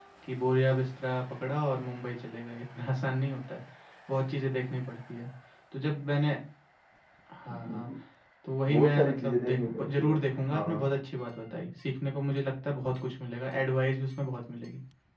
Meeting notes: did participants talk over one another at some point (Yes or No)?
Yes